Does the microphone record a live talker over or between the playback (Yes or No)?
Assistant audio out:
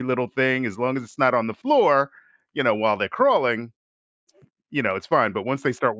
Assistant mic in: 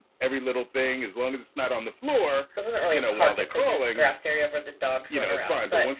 Yes